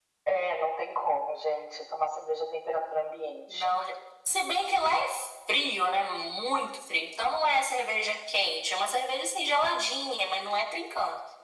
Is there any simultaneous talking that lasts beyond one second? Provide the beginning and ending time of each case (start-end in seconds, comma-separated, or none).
none